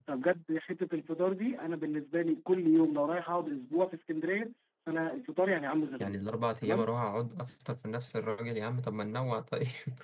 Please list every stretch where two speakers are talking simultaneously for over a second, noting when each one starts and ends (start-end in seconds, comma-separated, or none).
none